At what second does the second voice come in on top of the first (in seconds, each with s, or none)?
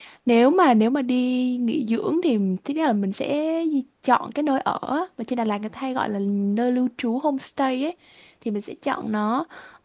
none